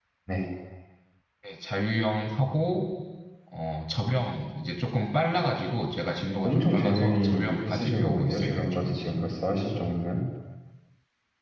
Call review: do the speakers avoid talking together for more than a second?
No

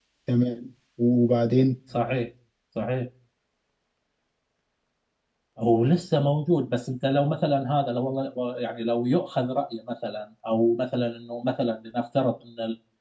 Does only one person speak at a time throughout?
Yes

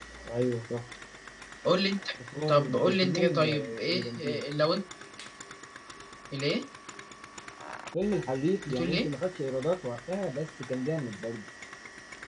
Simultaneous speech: Yes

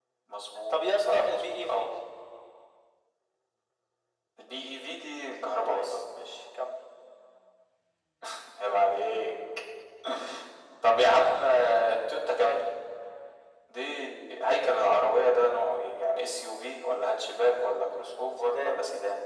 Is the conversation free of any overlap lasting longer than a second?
No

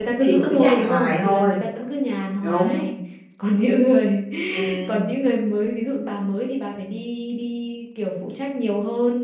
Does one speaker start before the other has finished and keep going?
Yes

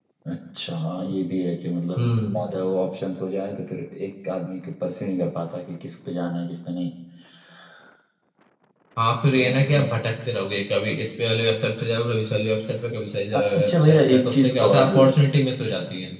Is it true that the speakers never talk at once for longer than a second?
No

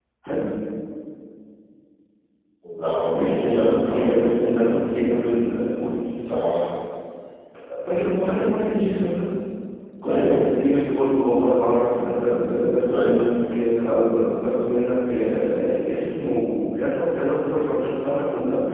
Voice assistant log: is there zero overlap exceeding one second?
No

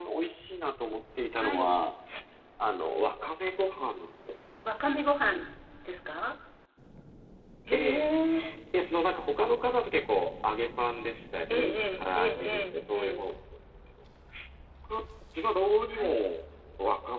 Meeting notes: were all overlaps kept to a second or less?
No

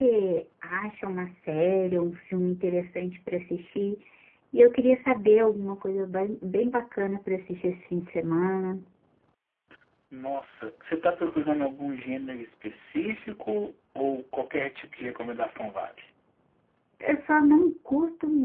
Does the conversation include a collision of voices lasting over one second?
No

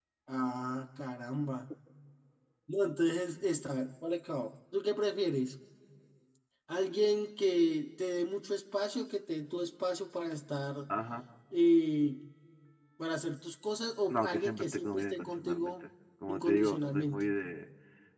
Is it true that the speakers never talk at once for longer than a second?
No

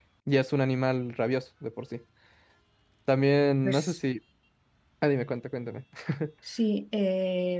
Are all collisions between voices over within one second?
Yes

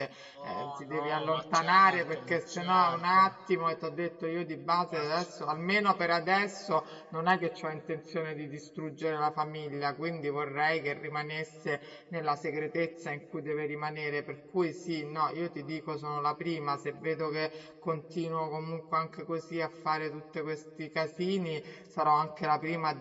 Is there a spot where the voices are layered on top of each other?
Yes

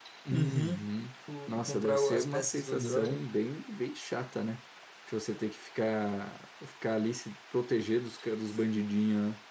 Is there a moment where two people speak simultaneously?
Yes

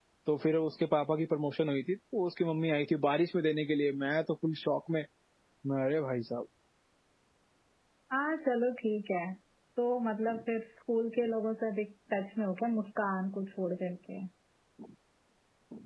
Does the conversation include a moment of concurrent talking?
No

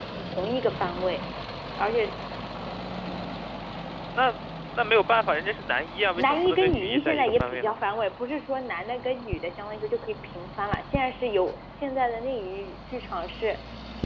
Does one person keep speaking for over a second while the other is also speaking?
Yes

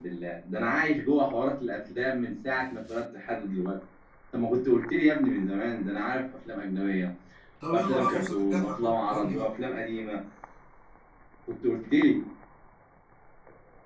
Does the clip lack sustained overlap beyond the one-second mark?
No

